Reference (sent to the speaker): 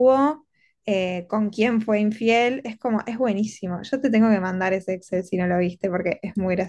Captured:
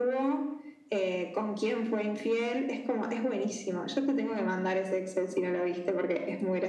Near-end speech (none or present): none